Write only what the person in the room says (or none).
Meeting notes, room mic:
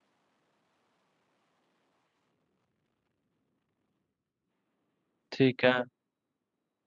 ठीक है